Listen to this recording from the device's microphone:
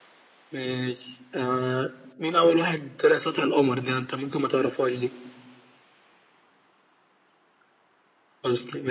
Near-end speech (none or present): none